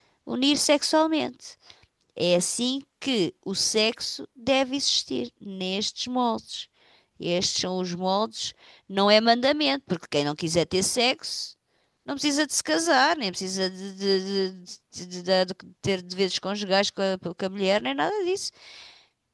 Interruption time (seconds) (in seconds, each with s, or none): none